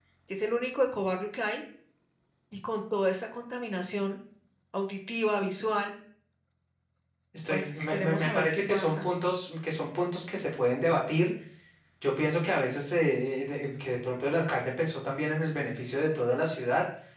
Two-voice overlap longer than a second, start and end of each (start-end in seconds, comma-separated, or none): 7.5-9.1